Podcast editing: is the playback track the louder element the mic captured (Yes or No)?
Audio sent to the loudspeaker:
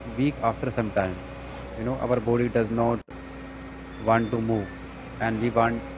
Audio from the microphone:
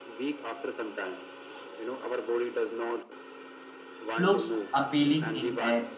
No